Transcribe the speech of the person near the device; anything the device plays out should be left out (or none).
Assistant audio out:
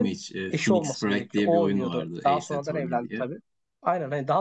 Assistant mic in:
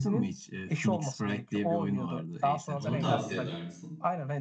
Onu tavsiye eder misin?